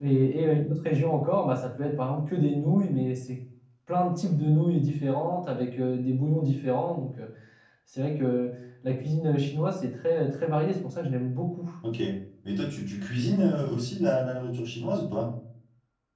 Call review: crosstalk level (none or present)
none